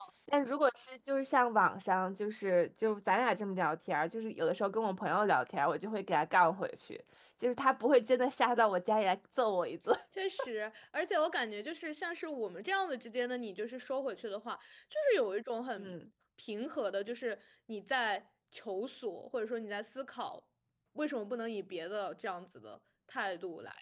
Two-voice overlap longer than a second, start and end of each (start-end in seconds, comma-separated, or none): none